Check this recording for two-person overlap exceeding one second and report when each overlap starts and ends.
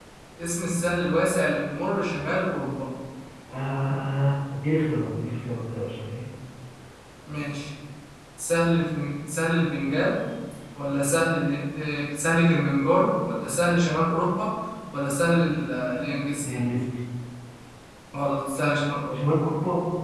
none

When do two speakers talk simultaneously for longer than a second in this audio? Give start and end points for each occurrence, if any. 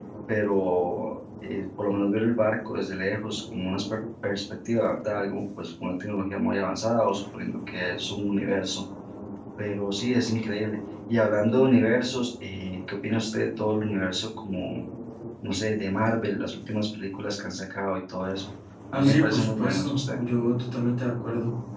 18.9-20.2

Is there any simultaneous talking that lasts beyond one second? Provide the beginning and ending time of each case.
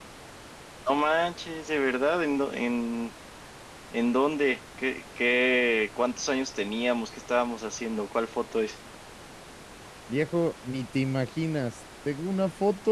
none

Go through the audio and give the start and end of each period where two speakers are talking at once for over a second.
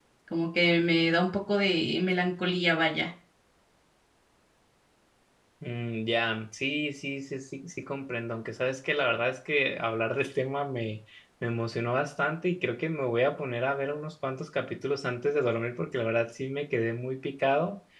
none

